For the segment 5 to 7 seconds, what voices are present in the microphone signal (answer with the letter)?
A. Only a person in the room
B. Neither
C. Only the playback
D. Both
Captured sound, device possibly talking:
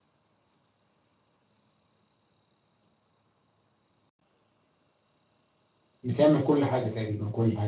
A